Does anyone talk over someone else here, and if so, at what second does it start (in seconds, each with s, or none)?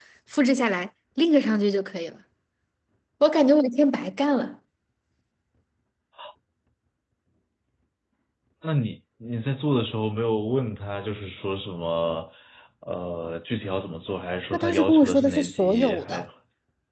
14.5 s